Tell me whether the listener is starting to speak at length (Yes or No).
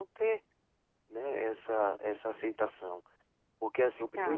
Yes